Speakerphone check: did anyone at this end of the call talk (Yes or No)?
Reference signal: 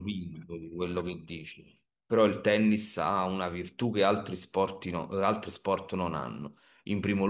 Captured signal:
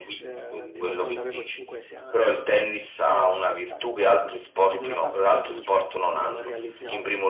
Yes